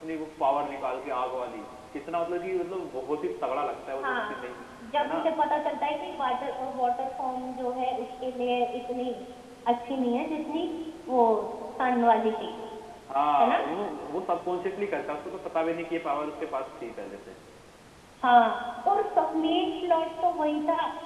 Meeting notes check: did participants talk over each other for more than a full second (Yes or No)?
No